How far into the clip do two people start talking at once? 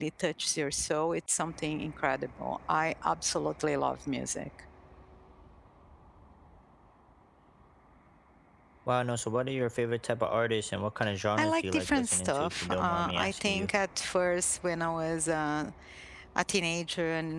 11.4 s

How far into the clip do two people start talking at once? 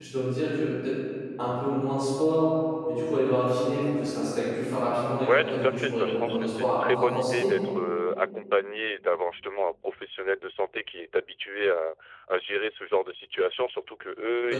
5.1 s

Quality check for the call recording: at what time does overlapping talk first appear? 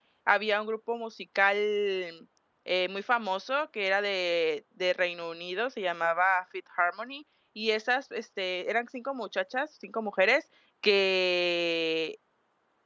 none

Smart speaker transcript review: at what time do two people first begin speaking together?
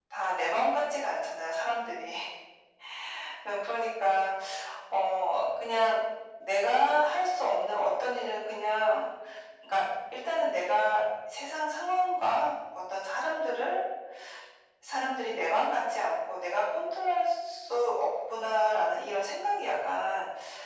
none

